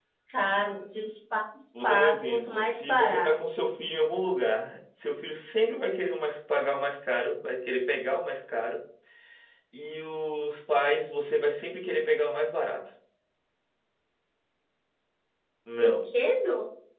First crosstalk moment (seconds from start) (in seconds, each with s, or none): 1.8 s